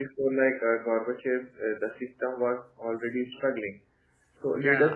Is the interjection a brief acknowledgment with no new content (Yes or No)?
Yes